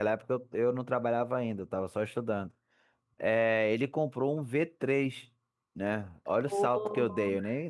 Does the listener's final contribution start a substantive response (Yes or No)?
No